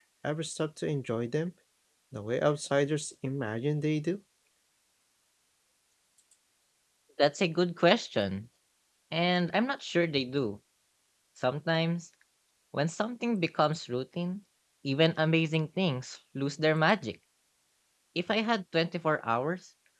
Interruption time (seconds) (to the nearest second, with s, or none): none